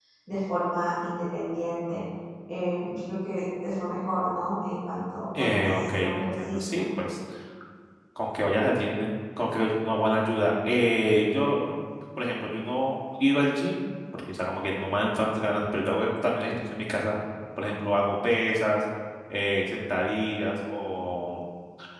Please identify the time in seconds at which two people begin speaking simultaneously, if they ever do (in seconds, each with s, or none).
5.4 s